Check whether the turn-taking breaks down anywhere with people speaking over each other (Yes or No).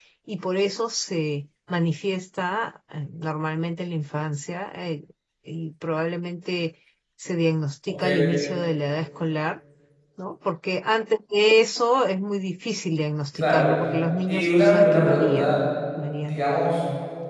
Yes